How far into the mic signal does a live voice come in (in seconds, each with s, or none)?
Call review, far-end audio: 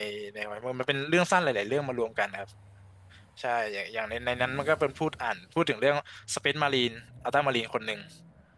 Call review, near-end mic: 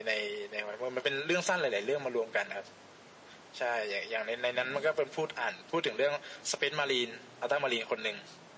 none